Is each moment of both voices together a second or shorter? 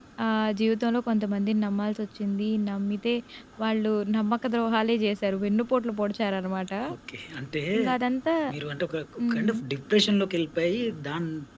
Yes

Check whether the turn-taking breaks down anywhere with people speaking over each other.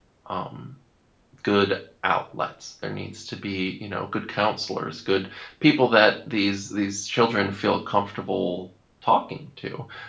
No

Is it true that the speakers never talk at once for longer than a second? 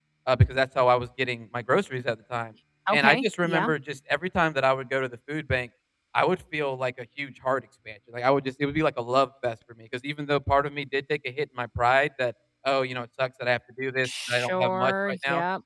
No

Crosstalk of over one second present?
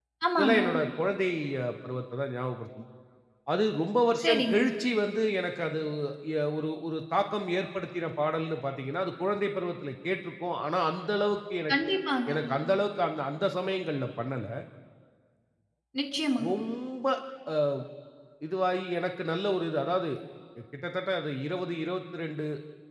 No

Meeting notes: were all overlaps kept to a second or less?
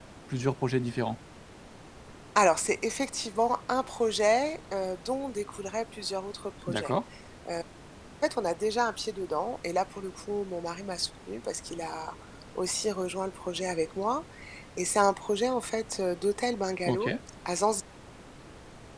Yes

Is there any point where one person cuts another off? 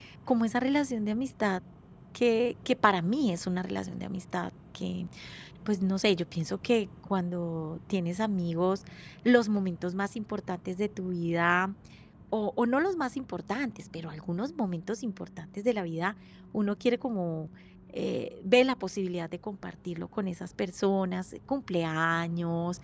No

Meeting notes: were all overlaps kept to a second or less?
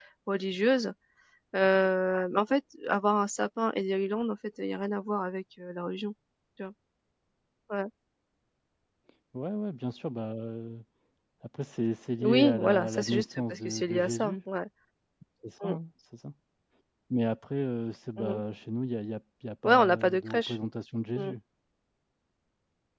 No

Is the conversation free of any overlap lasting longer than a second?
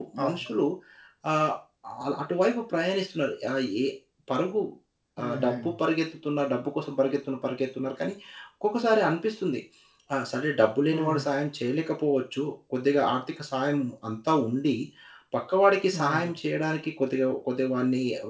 Yes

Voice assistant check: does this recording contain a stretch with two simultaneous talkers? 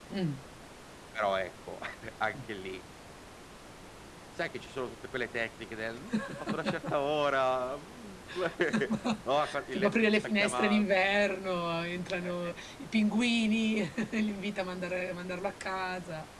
Yes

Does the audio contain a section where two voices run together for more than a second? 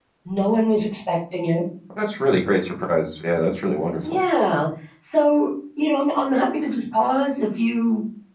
No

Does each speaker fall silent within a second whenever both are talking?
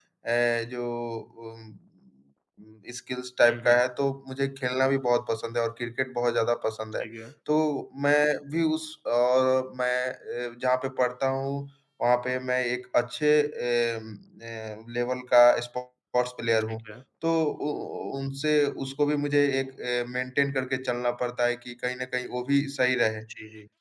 Yes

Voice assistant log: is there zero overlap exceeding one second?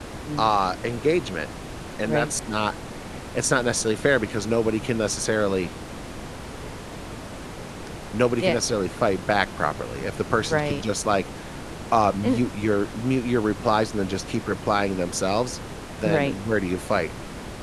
Yes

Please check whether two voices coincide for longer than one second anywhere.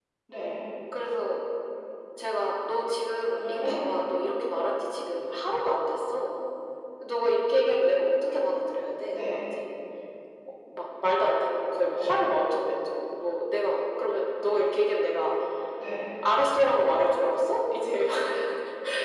No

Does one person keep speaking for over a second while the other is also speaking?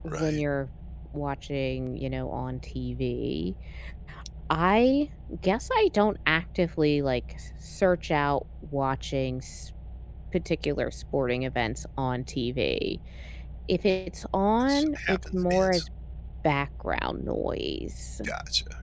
Yes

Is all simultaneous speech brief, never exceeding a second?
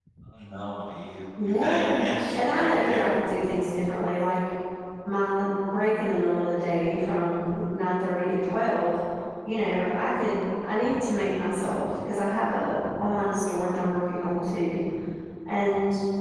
No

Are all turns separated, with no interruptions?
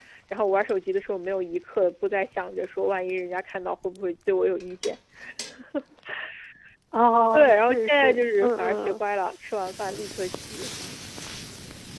No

